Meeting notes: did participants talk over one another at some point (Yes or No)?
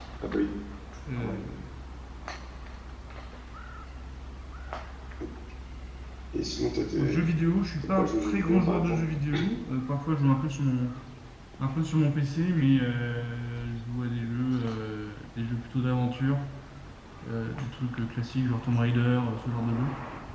Yes